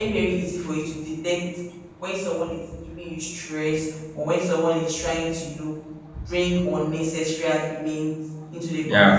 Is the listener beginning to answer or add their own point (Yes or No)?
No